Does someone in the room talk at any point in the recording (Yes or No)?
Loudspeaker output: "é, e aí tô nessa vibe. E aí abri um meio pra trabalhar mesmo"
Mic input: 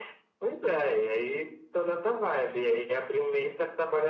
No